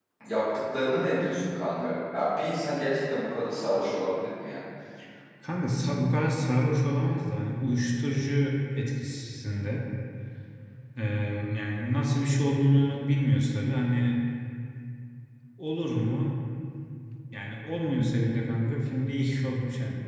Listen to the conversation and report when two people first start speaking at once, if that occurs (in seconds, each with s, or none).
none